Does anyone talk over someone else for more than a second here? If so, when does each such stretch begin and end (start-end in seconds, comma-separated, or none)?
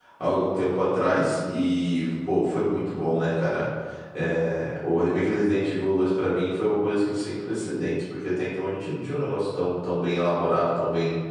none